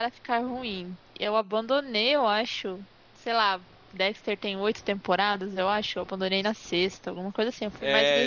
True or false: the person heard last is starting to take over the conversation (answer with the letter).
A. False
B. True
B